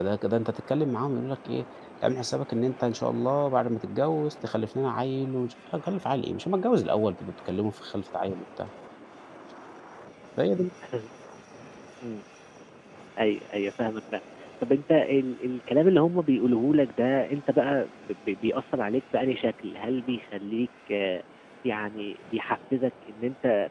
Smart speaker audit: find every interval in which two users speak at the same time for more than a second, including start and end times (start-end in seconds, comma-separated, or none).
none